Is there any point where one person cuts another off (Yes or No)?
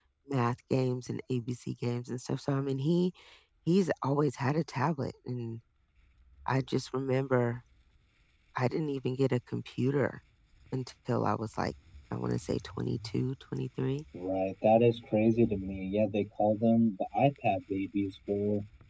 No